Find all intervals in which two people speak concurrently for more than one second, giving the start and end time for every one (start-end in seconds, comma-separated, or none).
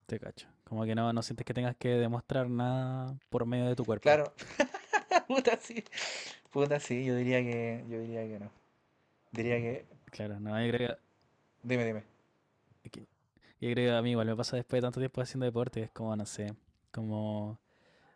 none